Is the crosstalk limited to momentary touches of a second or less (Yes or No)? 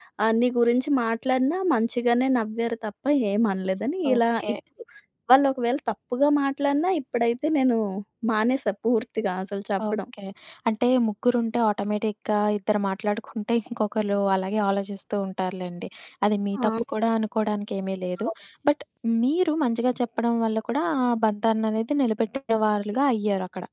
Yes